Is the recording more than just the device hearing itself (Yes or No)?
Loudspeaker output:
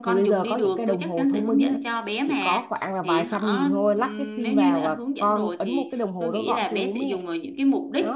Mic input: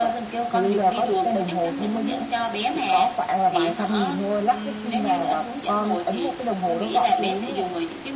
No